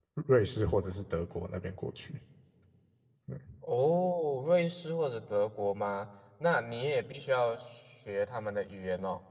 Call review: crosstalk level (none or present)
none